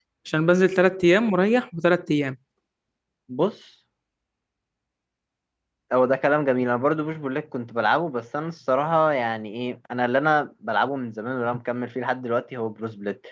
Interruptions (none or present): none